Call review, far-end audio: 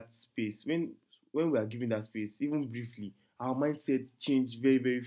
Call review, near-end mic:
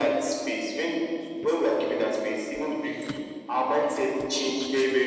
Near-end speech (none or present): none